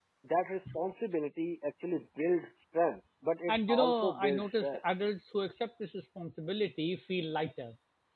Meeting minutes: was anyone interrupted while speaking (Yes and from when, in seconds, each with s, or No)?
Yes, from 3.5 s